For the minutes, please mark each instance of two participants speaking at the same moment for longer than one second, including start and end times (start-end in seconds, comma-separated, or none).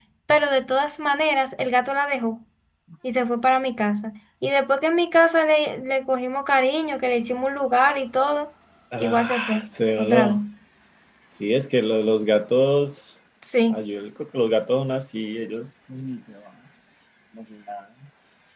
9.0-10.4